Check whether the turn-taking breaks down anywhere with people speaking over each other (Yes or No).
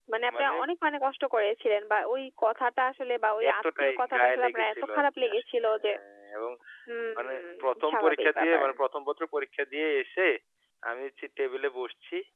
Yes